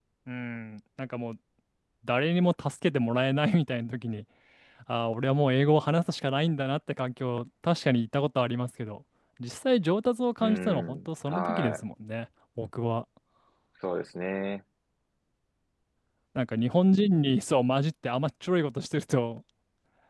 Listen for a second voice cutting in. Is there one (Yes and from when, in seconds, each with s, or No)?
Yes, from 10.4 s